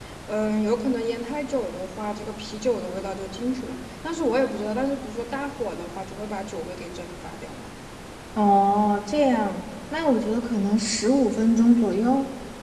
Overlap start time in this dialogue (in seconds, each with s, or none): none